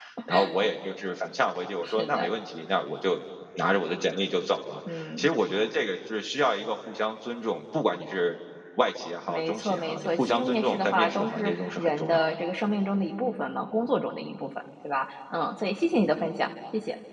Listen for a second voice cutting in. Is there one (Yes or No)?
Yes